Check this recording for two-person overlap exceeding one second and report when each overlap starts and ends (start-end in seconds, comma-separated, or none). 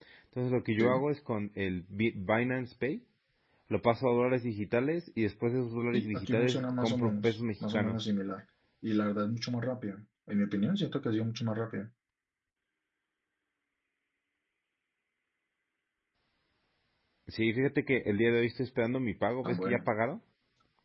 5.9-8.0